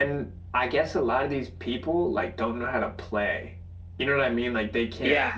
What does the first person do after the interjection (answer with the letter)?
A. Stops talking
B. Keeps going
B